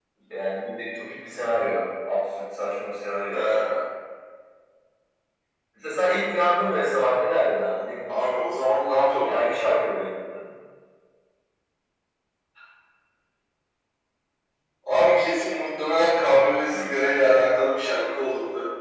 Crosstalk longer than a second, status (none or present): none